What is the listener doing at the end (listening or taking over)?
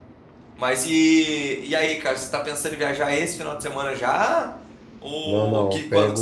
taking over